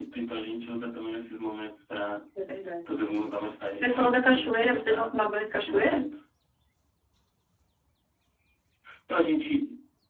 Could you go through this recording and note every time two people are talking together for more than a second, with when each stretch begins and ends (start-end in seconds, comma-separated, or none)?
3.8-5.1